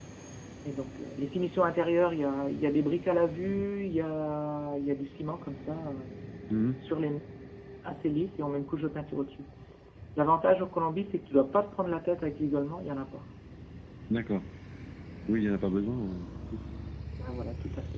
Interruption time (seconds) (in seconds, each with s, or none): none